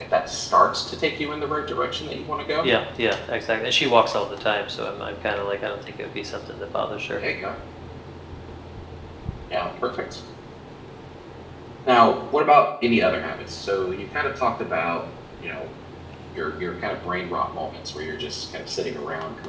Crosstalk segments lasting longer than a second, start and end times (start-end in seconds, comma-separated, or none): none